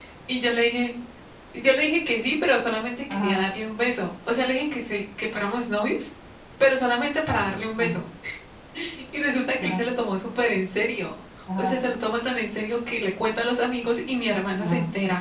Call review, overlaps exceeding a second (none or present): none